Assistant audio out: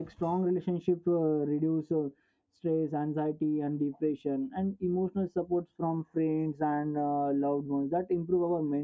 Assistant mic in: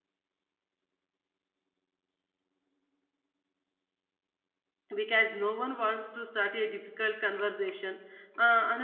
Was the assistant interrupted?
Yes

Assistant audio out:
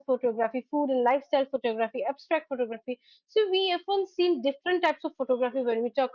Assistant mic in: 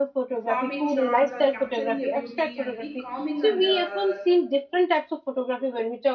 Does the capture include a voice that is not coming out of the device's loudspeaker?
Yes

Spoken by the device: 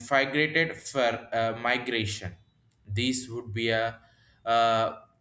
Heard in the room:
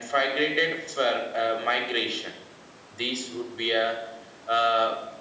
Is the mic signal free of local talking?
Yes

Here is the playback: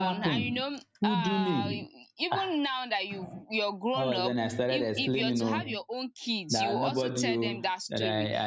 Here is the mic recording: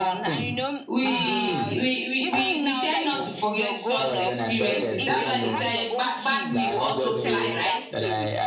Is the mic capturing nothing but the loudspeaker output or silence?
No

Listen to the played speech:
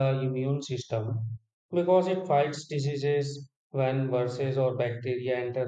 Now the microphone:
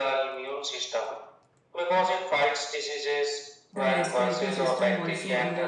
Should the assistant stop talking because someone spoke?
Yes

